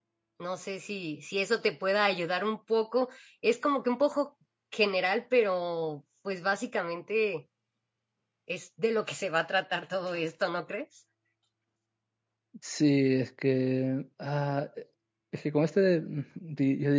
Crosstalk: none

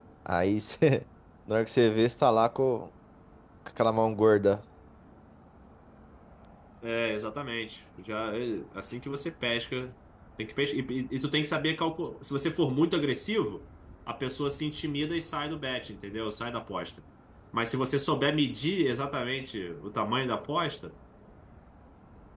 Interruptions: none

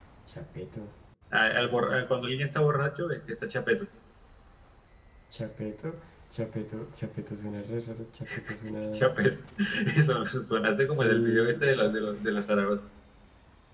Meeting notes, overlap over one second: present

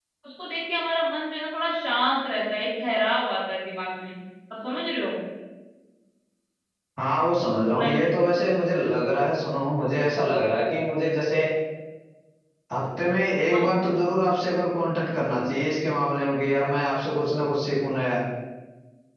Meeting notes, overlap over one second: none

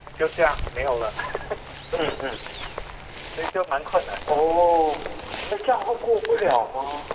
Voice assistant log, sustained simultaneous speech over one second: none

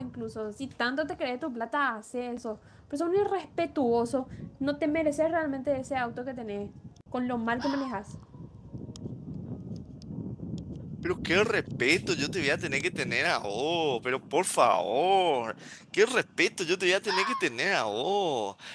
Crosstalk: none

